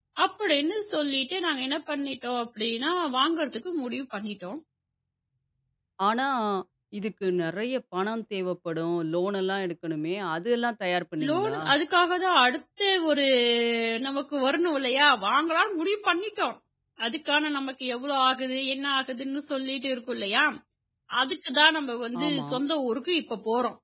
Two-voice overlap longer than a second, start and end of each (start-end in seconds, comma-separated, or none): none